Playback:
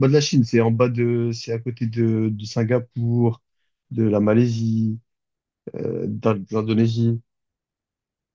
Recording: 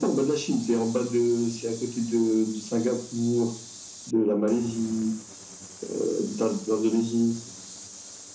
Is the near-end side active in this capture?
No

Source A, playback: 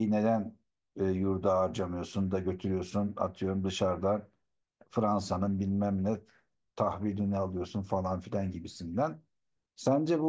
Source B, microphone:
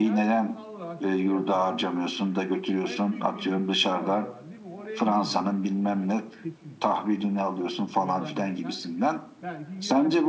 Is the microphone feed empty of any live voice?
No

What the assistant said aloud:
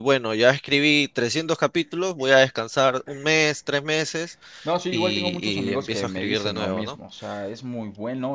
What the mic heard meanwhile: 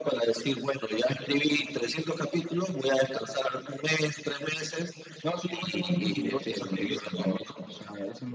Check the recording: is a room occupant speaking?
No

